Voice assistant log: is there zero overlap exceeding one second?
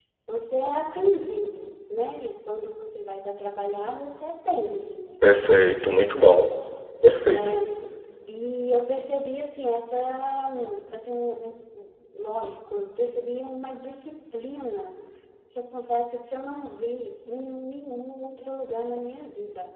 Yes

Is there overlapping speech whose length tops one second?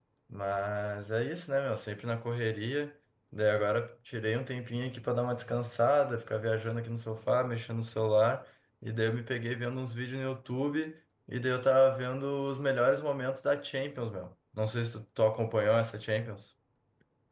No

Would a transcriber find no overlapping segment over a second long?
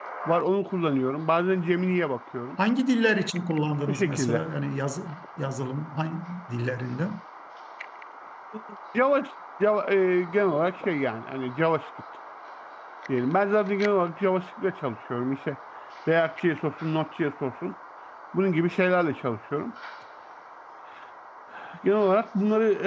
Yes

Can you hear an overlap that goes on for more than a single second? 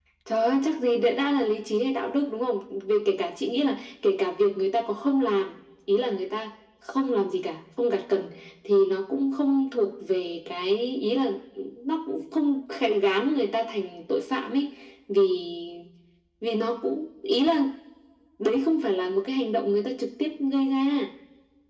No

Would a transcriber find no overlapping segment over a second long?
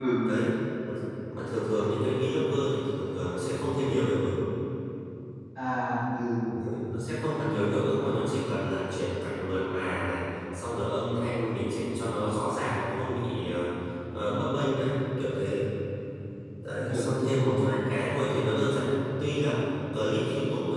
Yes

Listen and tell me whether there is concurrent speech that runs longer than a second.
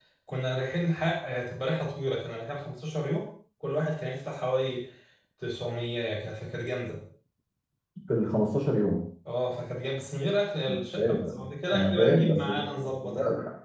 Yes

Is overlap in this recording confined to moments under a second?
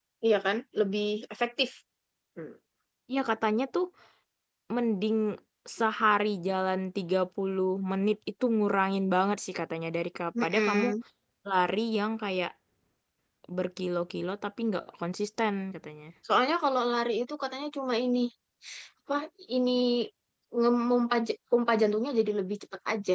Yes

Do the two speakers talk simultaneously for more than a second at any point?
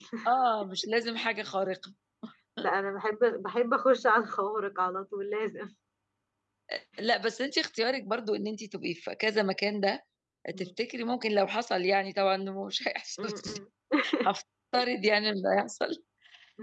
No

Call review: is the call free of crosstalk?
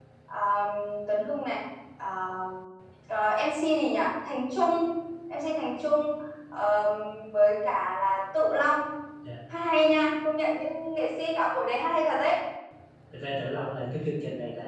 Yes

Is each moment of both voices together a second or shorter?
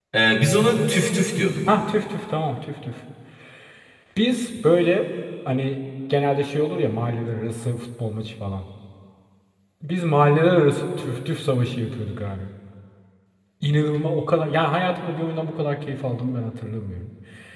Yes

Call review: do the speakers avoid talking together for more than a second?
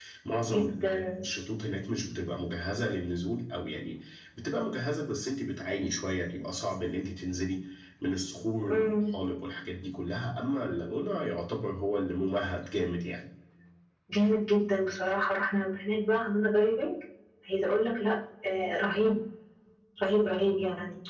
Yes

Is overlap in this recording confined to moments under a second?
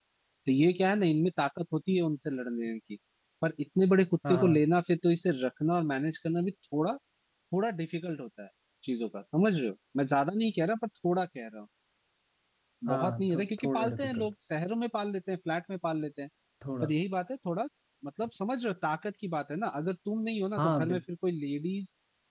No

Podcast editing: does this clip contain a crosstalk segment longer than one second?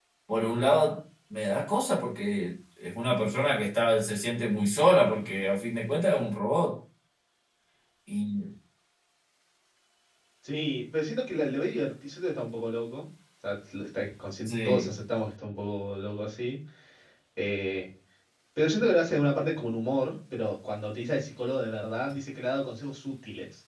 No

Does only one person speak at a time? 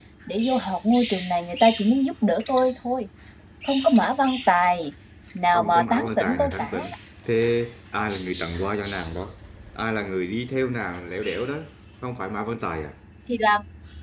No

